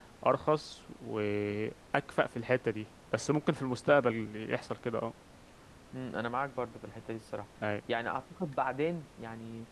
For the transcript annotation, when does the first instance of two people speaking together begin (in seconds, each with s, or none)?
none